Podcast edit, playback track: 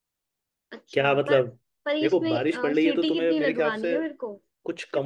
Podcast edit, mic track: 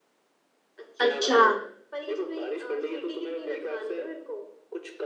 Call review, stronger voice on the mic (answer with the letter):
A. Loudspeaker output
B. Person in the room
B